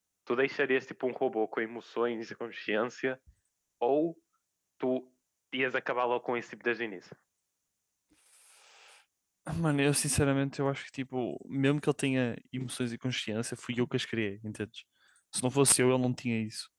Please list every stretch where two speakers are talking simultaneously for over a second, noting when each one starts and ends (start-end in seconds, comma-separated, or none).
none